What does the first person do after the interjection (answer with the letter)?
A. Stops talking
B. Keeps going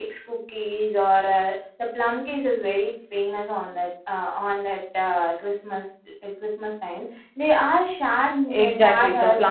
A